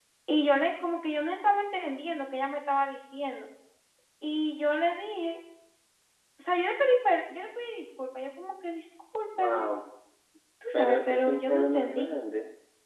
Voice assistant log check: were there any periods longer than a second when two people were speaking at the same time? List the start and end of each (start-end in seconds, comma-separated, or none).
10.7-12.1